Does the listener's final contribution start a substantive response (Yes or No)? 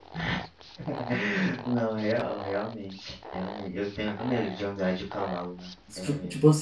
Yes